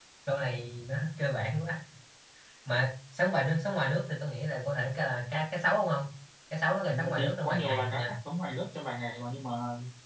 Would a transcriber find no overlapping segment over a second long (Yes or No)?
No